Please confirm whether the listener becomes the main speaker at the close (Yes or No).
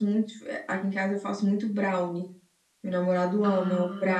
No